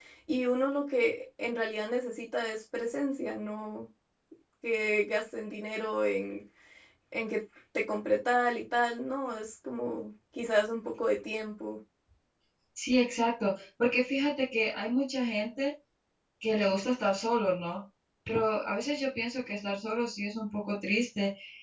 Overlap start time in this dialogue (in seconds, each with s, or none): none